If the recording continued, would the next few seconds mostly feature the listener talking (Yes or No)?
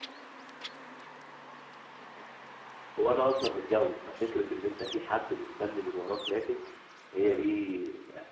No